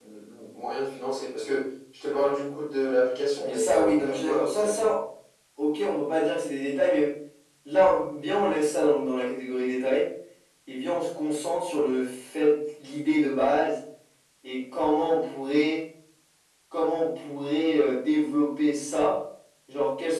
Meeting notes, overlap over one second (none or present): present